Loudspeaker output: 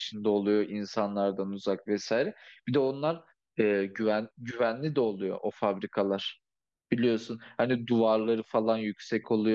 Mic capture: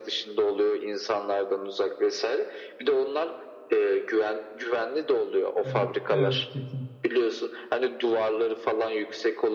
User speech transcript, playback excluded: Evet, evet kesin.

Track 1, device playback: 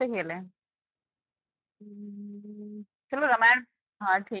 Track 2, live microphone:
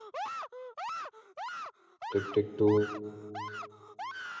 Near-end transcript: टिक टिक टू

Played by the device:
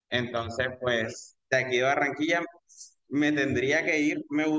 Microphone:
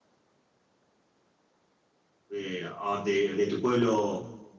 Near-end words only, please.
eh, a donde- de tu pueblo

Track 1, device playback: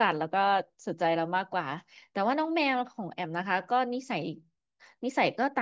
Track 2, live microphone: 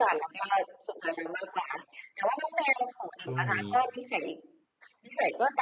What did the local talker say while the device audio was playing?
ช่วงนี้

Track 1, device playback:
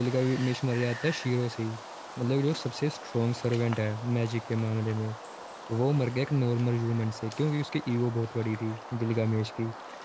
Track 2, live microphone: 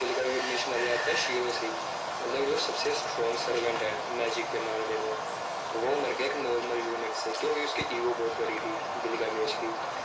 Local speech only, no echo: none

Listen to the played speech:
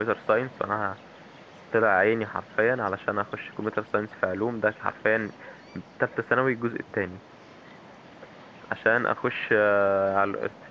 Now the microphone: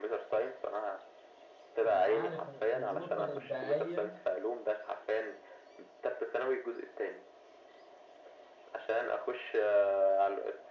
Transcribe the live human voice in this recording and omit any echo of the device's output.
انا عارف النقطة الابداعية

